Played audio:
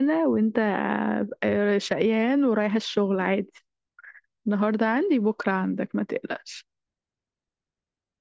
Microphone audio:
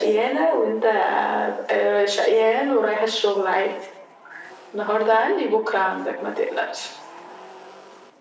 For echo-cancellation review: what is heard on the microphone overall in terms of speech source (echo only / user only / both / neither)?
echo only